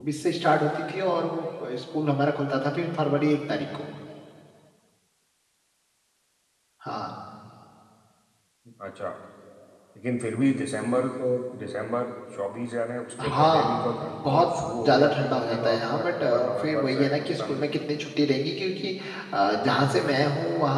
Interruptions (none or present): present